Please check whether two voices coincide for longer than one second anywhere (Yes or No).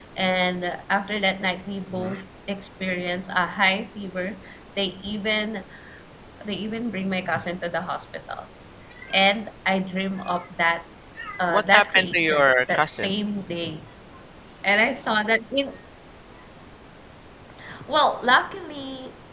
Yes